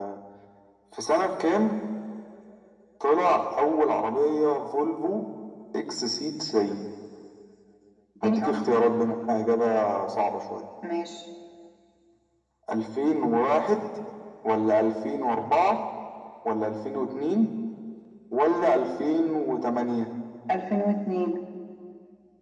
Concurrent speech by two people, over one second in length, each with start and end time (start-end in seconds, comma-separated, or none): none